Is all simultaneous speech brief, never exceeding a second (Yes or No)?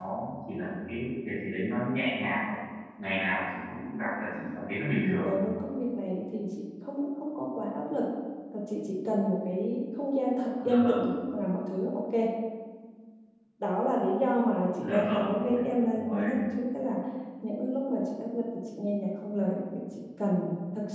Yes